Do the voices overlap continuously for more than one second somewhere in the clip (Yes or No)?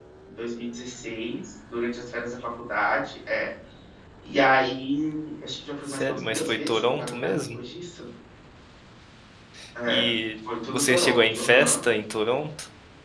Yes